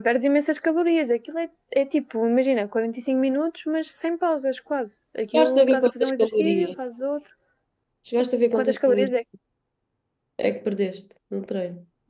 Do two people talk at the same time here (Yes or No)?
Yes